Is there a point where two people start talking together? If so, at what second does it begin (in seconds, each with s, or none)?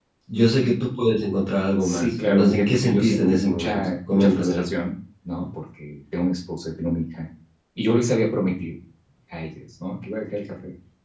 1.8 s